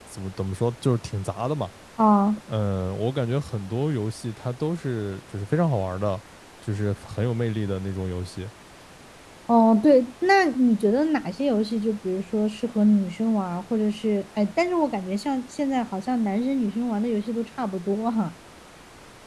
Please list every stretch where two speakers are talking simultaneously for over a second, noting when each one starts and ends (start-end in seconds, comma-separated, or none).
none